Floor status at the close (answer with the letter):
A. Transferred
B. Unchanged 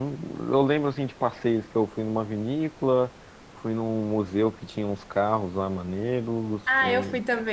A